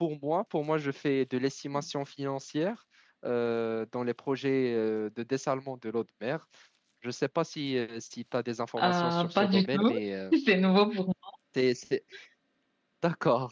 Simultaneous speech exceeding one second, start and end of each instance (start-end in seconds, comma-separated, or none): 8.8-10.0